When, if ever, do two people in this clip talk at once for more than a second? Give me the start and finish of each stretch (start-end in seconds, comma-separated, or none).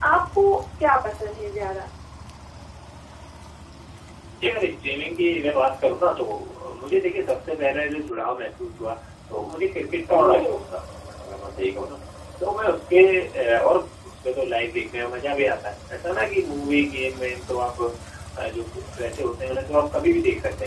none